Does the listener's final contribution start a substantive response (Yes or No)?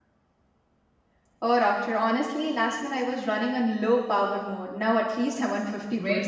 Yes